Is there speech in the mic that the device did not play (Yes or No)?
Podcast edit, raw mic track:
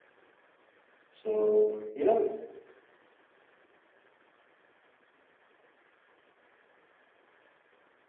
Yes